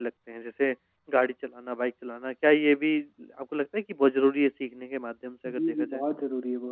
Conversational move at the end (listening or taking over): taking over